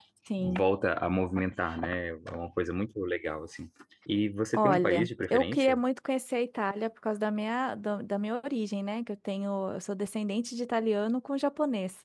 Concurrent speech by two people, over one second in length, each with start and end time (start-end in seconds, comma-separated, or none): 4.5-5.8